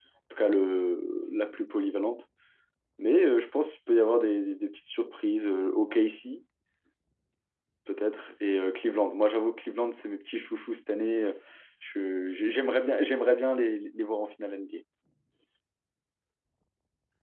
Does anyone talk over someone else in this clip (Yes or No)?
No